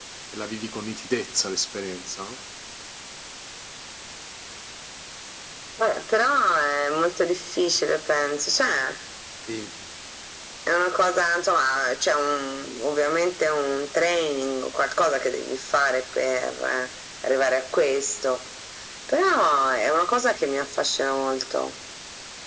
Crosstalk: none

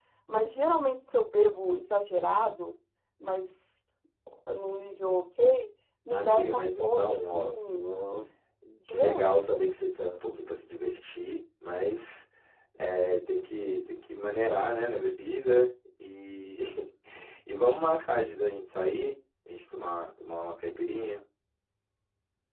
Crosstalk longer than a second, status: present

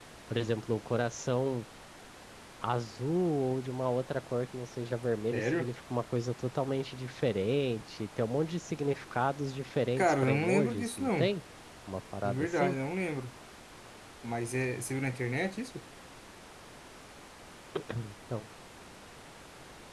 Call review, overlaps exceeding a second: present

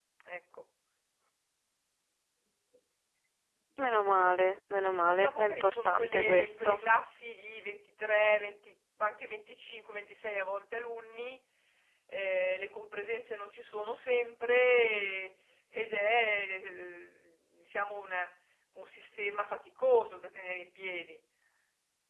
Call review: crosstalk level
present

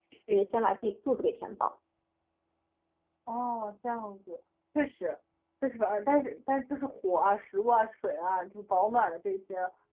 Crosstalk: none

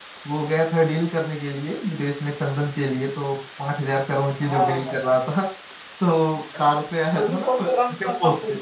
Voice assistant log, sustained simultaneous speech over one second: present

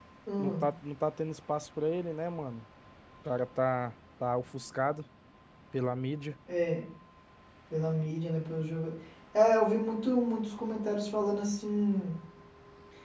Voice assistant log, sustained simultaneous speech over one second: none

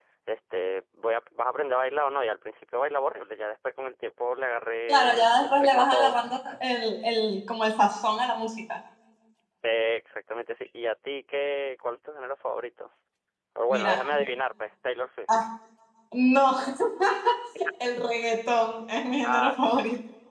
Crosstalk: present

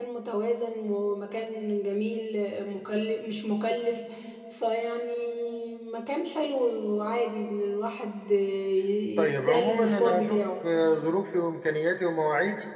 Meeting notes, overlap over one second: present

